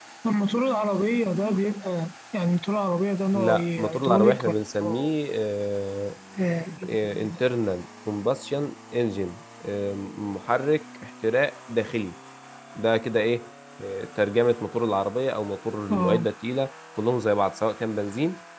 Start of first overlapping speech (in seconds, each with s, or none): 3.3 s